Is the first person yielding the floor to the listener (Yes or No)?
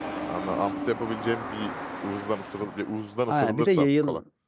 Yes